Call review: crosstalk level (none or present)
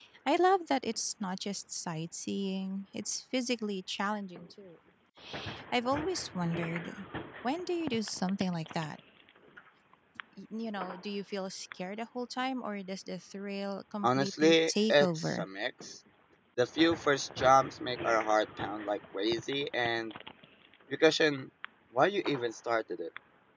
present